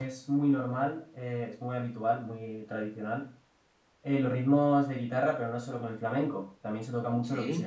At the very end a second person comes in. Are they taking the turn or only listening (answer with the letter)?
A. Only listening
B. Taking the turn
A